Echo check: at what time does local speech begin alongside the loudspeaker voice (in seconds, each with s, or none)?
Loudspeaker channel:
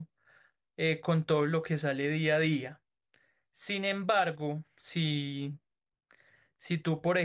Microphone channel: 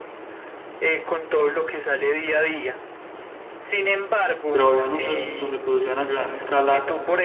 4.5 s